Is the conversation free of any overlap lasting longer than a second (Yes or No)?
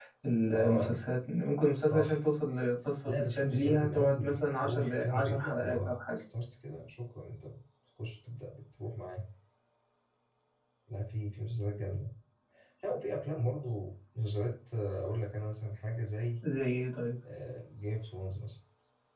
No